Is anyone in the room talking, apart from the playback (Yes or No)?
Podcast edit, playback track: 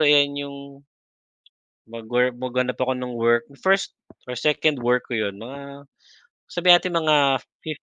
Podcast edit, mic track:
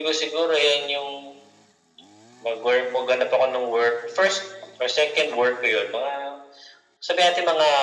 No